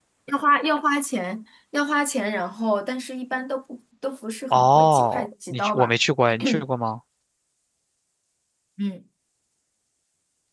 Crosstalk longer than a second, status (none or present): present